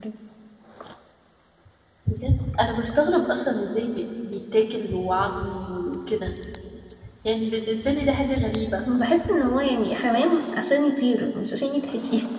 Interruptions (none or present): none